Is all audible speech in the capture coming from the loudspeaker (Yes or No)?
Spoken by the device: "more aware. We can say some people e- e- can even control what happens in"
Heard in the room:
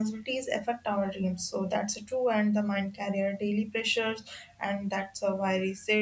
No